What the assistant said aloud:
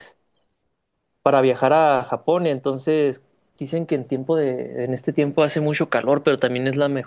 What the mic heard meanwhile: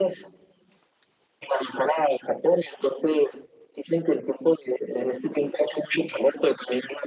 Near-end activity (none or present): none